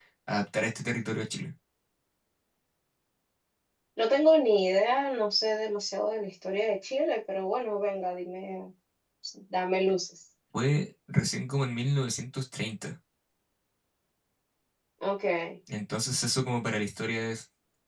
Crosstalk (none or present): none